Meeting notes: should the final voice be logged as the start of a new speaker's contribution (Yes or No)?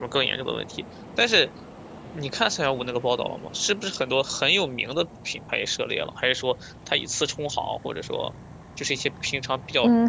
Yes